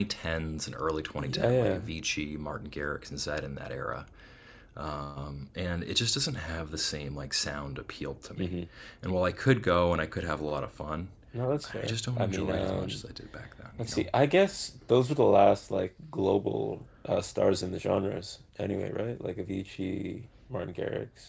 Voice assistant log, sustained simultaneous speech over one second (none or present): present